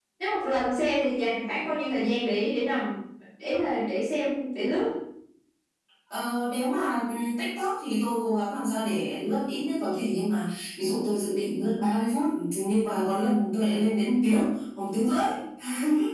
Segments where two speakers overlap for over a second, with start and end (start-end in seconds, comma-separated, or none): none